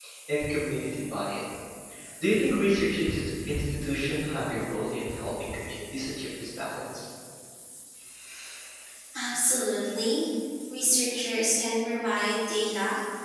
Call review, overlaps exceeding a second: none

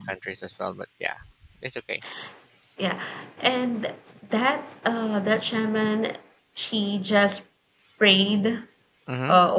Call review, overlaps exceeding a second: none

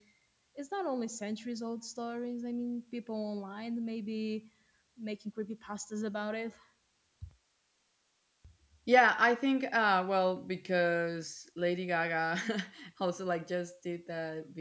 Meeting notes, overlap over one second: none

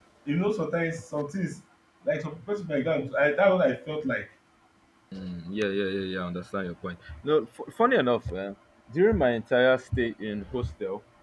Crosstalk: none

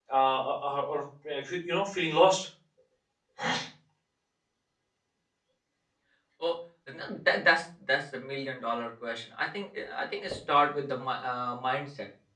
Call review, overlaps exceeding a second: none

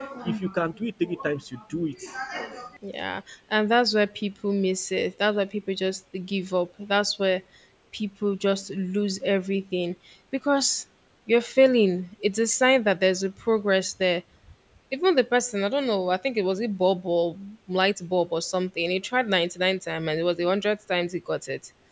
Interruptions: none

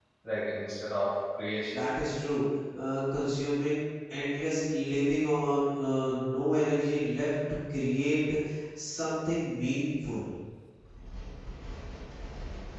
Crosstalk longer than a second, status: none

